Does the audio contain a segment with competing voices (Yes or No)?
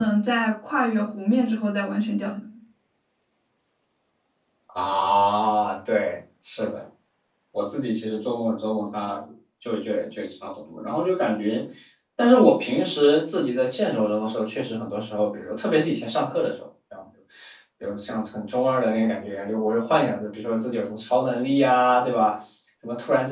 No